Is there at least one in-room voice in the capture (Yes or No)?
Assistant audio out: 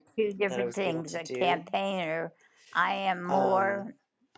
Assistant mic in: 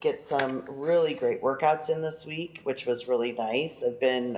Yes